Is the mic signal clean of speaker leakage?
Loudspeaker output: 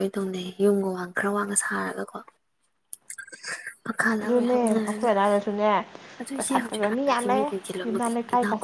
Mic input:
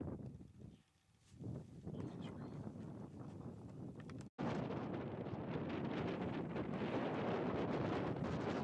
Yes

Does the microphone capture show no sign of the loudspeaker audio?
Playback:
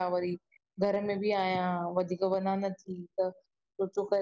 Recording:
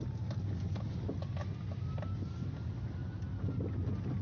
Yes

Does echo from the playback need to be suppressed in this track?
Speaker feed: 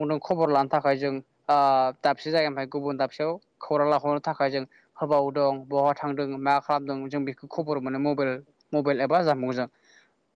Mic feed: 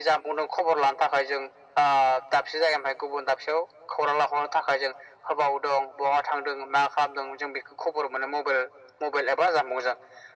Yes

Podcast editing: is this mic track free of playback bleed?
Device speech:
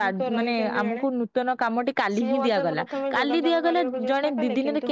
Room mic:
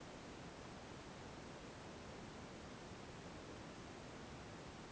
Yes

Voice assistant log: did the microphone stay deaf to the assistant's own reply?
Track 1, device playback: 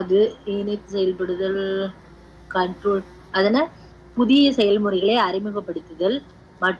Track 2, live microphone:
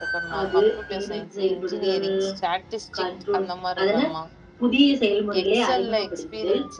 No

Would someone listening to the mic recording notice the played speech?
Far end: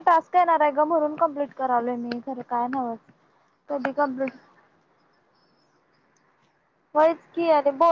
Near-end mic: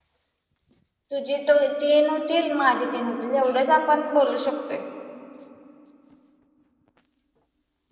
No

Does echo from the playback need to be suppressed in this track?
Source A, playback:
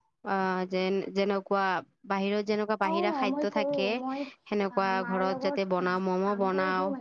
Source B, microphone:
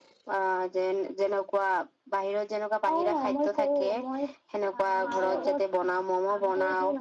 Yes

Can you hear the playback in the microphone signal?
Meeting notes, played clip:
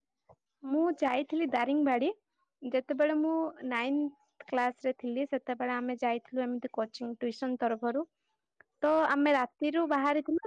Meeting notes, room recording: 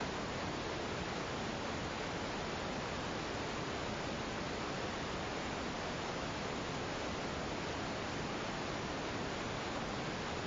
No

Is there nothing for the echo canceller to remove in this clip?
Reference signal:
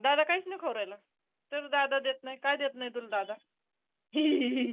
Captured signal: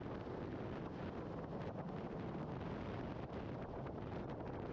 Yes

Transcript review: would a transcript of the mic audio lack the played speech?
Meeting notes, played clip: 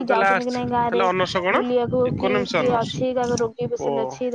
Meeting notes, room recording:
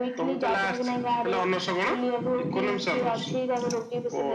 No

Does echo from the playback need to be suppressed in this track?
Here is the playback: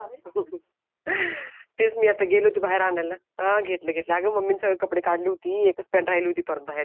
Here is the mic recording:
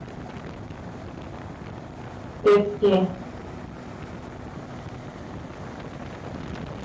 No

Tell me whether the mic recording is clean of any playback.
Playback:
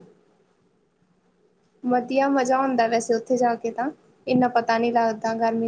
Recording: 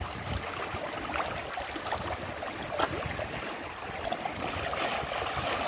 Yes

